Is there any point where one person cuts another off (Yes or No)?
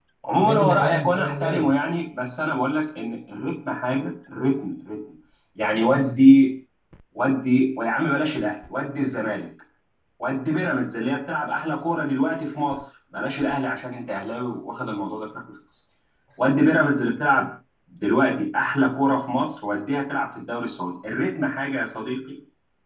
Yes